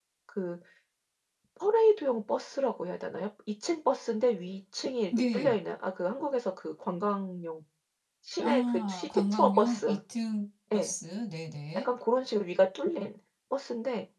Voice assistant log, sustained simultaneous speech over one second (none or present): present